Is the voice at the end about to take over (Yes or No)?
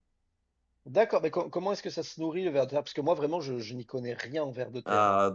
Yes